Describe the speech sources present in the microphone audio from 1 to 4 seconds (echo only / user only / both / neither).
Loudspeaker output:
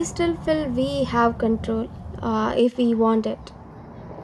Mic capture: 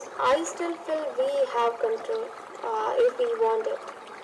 echo only